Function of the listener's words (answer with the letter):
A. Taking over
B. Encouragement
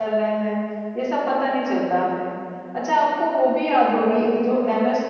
B